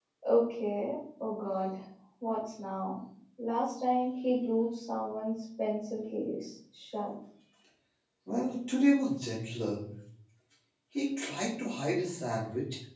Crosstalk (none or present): none